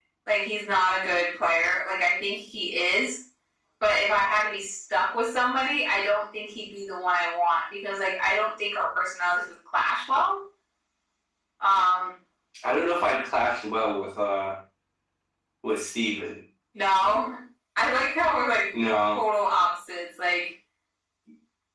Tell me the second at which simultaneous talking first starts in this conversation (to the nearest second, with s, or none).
none